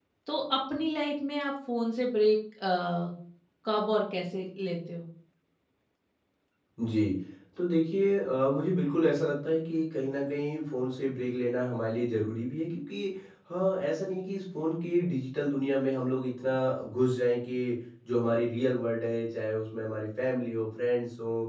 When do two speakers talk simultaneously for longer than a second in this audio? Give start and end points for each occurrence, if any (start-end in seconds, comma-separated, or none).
none